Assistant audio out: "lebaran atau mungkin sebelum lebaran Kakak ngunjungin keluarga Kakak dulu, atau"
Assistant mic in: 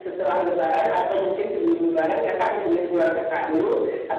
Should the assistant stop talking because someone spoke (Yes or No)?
Yes